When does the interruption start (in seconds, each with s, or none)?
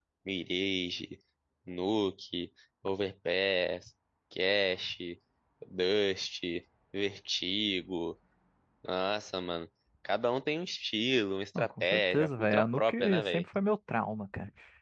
11.6 s